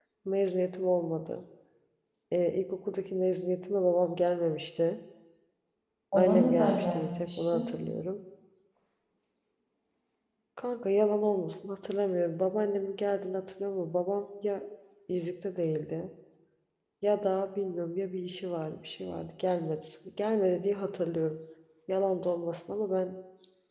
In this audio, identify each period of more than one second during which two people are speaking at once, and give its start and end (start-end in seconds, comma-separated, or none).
6.1-7.7